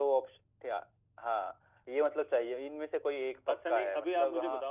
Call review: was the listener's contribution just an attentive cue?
No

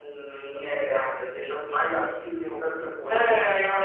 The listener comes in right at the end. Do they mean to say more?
Yes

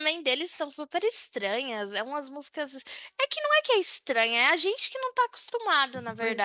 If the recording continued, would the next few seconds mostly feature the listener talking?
Yes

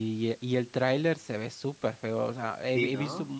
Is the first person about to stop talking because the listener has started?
No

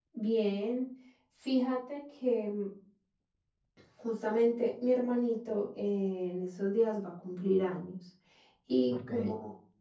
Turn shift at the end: No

